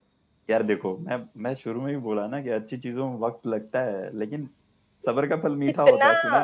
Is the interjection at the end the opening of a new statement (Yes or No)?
Yes